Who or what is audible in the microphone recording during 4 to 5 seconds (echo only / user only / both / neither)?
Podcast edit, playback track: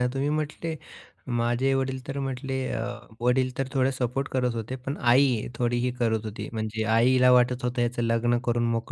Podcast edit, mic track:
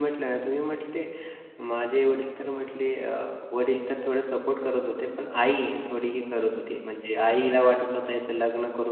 echo only